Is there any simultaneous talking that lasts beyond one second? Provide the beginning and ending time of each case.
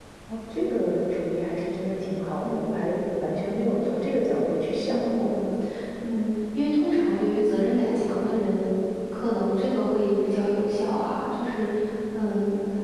none

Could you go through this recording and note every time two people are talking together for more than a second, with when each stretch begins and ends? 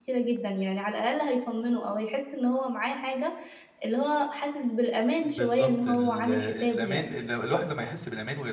5.2-7.1

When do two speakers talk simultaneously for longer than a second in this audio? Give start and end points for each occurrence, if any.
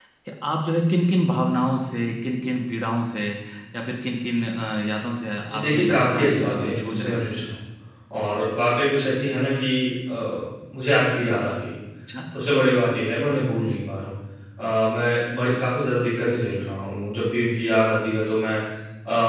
5.5-7.4

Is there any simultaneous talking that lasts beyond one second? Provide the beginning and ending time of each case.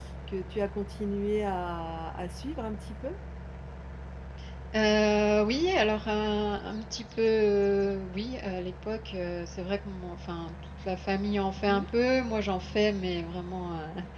none

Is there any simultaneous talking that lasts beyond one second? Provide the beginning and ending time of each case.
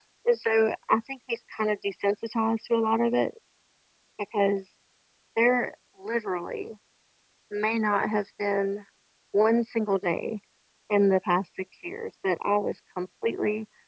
none

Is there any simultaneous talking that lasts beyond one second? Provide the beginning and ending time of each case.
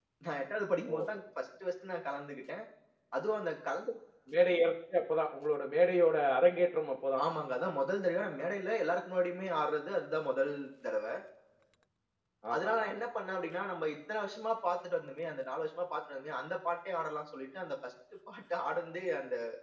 none

